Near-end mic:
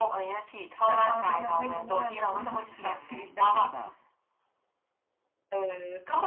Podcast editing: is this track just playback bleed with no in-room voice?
No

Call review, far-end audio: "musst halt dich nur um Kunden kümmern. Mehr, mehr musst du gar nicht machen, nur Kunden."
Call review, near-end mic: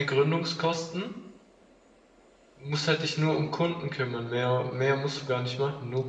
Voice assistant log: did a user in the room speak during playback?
No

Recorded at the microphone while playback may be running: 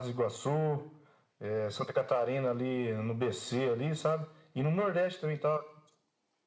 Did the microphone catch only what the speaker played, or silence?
Yes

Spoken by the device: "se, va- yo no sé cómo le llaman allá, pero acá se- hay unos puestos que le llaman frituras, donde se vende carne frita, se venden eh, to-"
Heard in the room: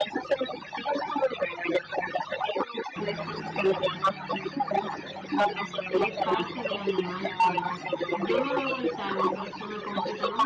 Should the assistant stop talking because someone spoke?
Yes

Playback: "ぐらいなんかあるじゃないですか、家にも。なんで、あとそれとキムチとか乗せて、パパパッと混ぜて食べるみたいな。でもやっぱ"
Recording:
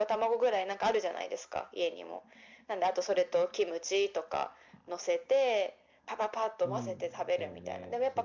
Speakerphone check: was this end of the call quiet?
No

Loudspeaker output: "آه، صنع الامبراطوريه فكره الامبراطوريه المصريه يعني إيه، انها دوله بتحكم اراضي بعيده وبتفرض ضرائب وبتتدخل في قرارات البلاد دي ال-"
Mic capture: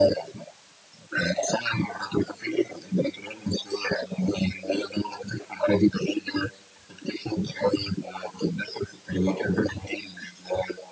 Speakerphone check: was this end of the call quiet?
Yes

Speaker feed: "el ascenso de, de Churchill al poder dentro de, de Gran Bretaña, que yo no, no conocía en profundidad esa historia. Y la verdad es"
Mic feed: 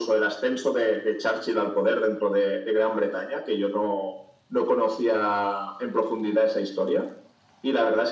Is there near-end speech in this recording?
No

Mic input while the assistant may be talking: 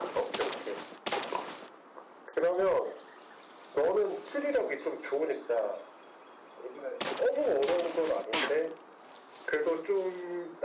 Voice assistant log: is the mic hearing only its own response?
Yes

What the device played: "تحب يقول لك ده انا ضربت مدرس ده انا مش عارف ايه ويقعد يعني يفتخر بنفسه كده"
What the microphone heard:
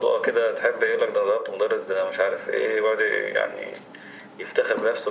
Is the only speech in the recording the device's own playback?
Yes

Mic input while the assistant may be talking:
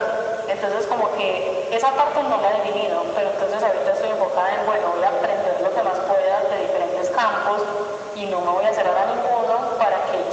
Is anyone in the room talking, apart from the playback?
No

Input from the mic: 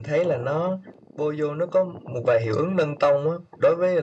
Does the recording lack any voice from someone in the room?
Yes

